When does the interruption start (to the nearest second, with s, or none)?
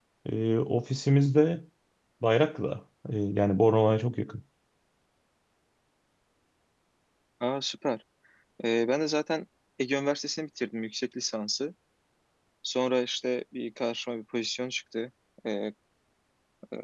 none